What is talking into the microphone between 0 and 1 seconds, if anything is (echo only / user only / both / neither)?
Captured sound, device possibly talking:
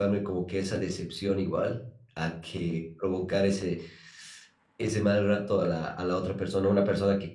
user only